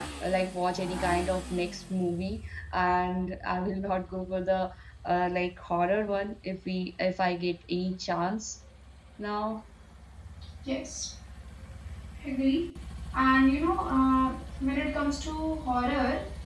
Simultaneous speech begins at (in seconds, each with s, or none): none